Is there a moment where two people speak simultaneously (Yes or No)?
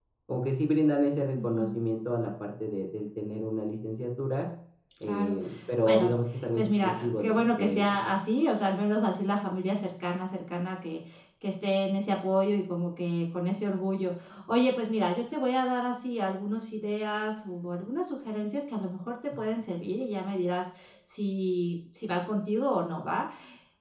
Yes